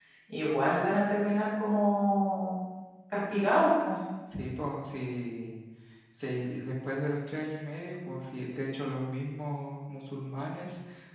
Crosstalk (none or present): none